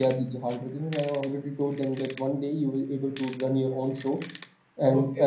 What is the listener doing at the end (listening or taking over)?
listening